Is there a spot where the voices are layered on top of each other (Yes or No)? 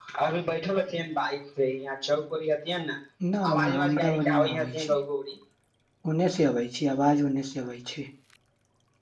Yes